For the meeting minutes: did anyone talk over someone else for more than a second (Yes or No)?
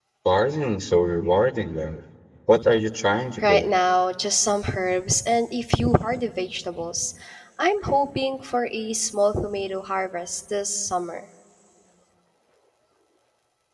No